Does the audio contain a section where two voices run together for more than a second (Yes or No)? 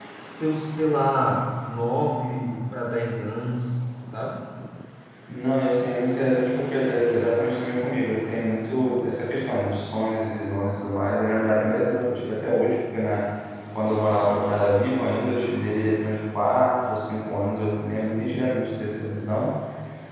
No